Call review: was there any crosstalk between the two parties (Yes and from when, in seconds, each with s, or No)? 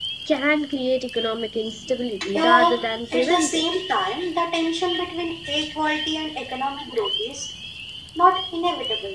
Yes, from 2.2 s